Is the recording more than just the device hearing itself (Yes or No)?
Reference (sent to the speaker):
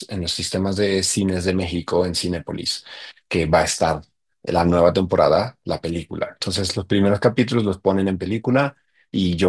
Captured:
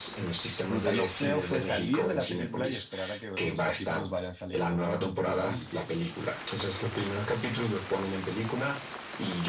Yes